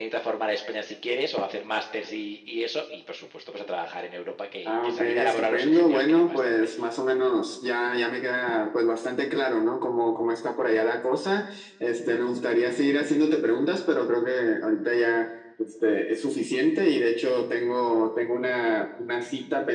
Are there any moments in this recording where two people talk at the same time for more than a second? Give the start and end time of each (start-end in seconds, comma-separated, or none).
4.7-6.7